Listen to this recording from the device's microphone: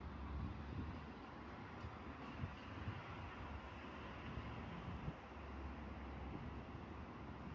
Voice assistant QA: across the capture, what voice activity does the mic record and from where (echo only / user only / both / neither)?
neither